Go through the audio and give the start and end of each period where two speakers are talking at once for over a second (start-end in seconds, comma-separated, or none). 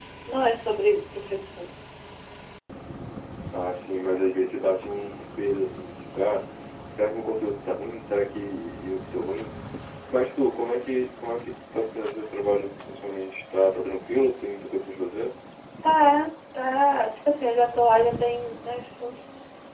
none